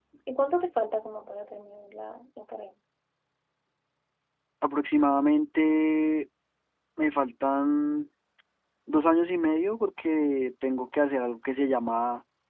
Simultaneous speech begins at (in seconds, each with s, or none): none